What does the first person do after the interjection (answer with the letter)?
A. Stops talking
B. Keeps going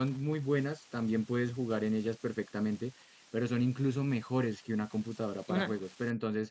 B